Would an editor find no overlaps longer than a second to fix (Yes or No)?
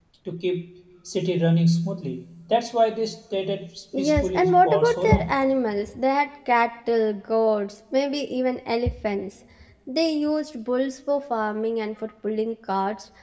No